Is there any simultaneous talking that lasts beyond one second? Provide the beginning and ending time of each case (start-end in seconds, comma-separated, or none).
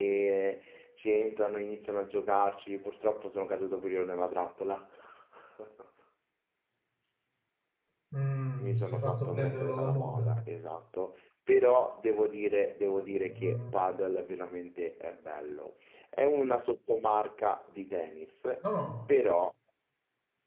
8.6-10.4